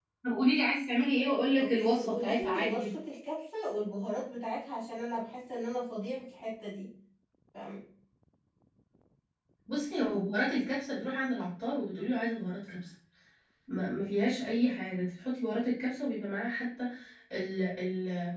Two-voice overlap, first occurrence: 1.6 s

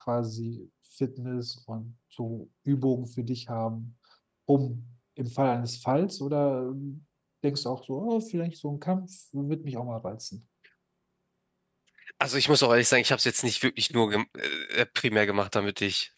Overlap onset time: none

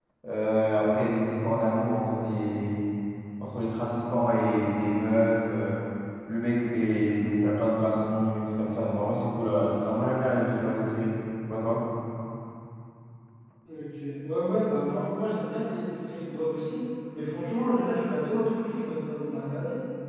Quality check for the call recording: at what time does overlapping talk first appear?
none

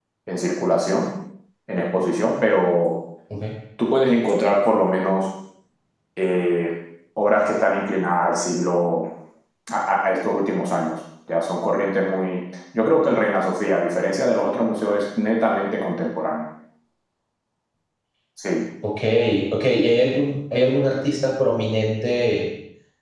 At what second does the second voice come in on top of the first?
none

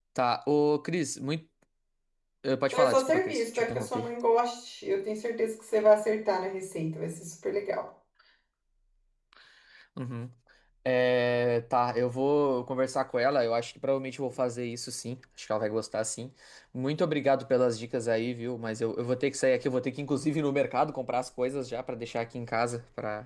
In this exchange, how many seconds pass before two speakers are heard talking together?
2.7 s

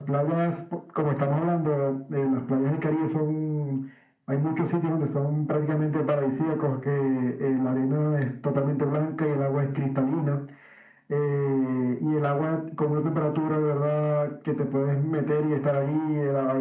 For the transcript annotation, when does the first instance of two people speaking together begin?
none

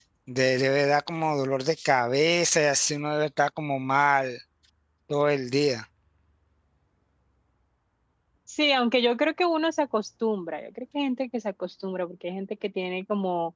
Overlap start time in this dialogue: none

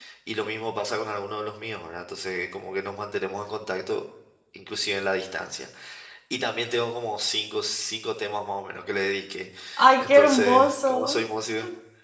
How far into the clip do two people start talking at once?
10.0 s

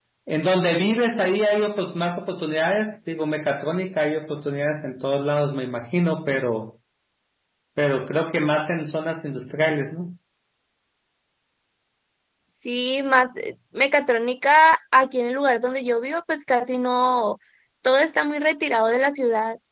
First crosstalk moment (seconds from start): none

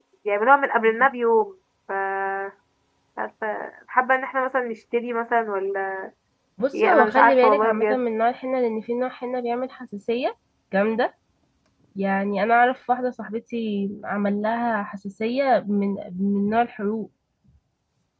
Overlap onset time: 6.7 s

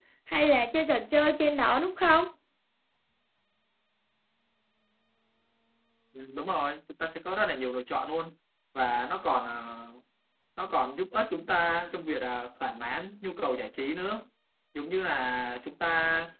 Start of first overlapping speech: none

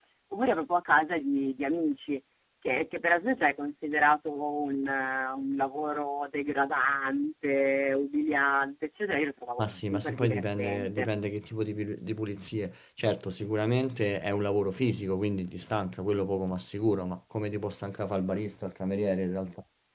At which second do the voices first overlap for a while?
9.6 s

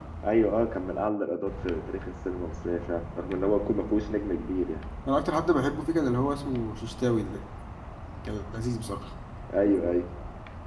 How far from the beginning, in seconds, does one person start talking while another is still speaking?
none

